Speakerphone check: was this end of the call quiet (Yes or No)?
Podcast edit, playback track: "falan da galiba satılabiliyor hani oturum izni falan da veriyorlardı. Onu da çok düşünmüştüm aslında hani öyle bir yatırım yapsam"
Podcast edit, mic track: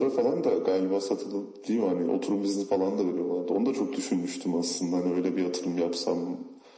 Yes